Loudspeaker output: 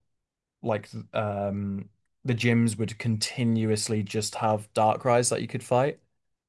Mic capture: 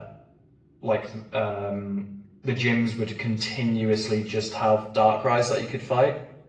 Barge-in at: none

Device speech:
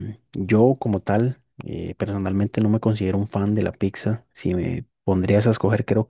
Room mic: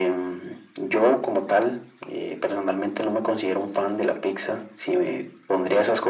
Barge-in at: none

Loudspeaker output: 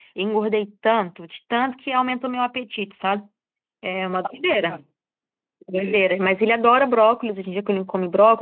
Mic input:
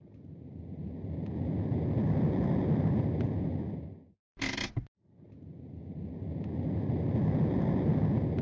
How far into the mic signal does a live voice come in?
none

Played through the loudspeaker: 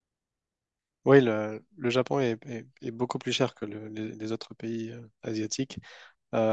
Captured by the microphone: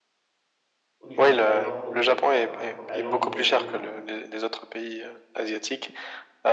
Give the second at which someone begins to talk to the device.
1 s

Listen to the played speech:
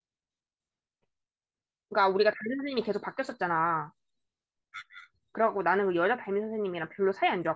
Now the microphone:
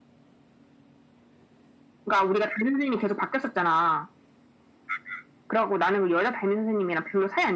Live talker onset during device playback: none

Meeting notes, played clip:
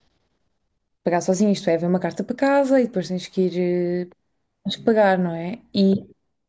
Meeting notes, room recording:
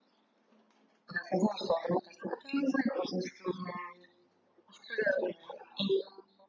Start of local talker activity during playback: none

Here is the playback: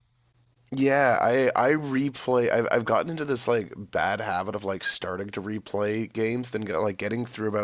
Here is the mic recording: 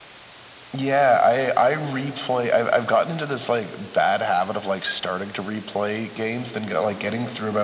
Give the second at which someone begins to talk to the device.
none

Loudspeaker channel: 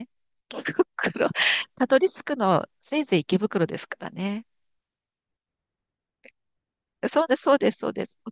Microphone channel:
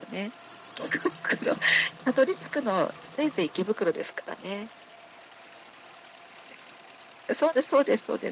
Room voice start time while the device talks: none

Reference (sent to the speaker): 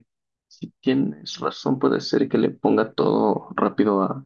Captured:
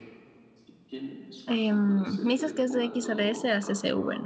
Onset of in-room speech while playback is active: 1 s

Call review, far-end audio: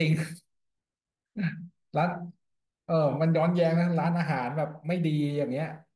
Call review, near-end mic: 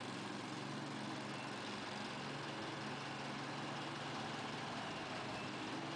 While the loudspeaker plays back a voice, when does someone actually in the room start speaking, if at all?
none

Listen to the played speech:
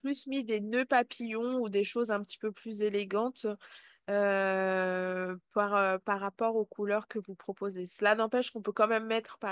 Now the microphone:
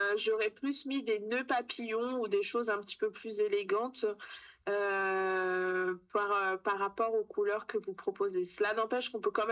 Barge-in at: none

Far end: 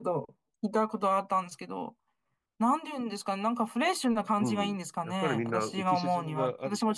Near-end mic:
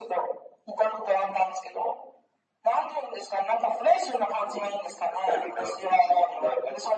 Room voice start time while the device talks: none

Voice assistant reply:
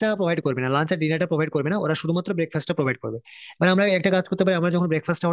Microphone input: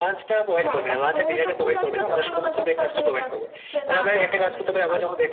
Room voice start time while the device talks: 1 s

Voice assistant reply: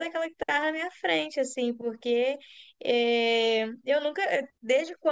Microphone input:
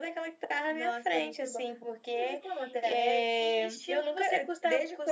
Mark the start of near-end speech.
1 s

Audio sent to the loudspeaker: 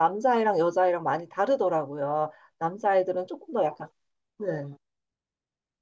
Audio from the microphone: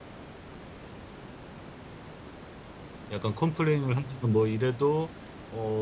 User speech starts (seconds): 3 s

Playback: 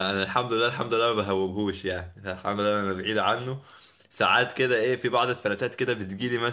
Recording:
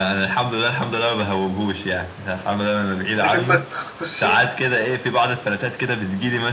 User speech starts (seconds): 3 s

